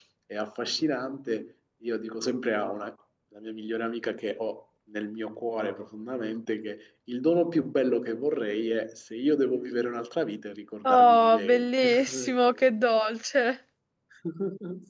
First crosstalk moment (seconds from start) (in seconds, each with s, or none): 10.8 s